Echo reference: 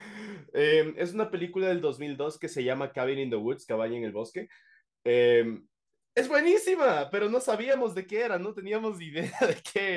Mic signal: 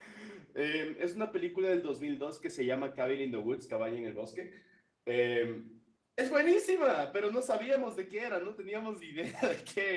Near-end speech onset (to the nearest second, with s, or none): none